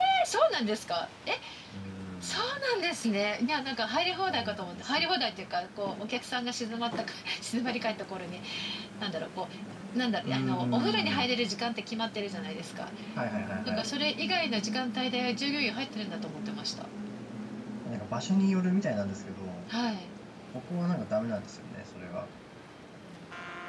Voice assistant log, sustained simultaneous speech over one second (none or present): present